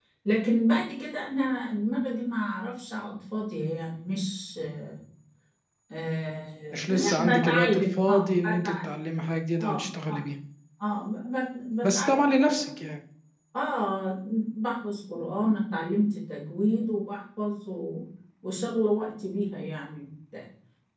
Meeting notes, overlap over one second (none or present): present